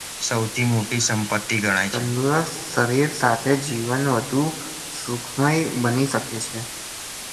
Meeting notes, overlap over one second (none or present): none